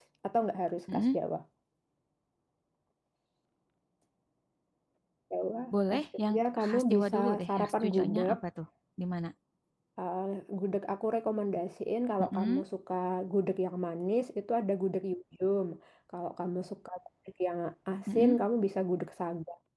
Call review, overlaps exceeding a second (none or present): present